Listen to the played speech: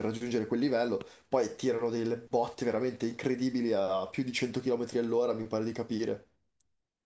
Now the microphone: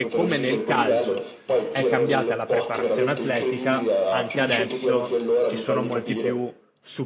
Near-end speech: present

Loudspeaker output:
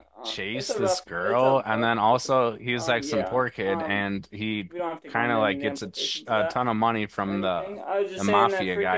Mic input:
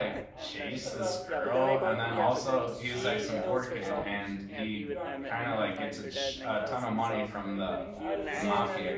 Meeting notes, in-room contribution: present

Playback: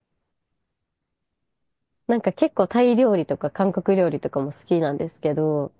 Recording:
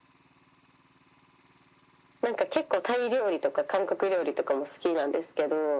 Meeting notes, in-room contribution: none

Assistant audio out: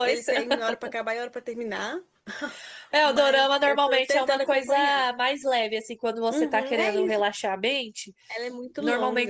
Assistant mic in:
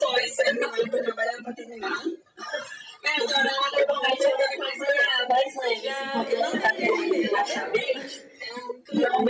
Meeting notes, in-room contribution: present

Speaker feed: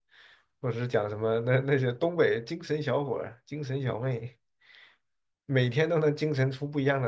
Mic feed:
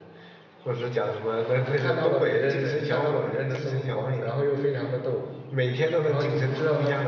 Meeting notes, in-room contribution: present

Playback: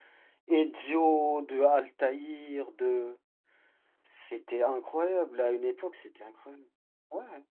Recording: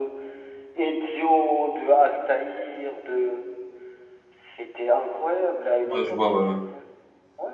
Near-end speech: present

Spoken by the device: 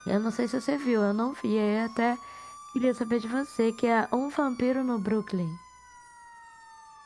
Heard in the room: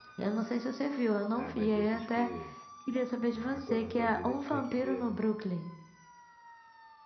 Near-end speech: present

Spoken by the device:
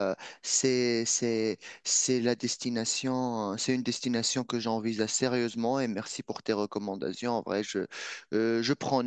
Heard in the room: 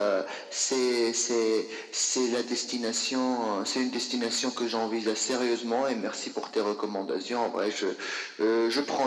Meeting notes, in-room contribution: none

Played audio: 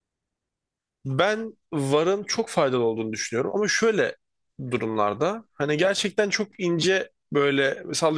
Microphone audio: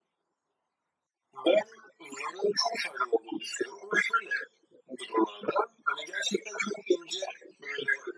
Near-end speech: none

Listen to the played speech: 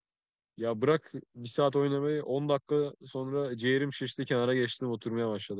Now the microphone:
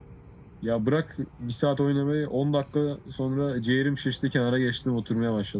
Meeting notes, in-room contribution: none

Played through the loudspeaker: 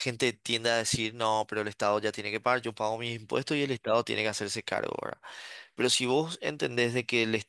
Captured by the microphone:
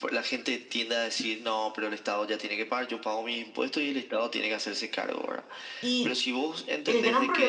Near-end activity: present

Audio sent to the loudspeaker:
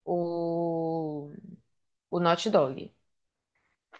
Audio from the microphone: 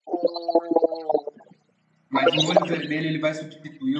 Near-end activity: present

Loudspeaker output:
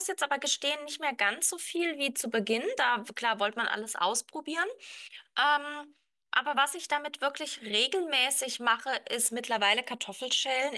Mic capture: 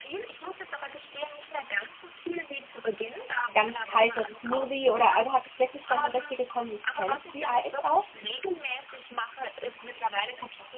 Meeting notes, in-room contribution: present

